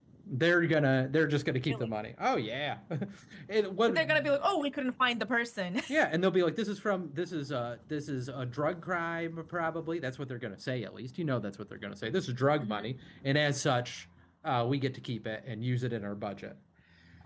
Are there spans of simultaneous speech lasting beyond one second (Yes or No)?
No